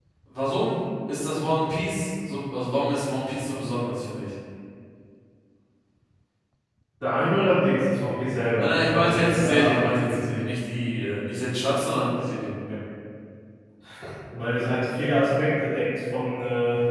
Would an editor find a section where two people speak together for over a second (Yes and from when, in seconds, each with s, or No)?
Yes, from 8.6 s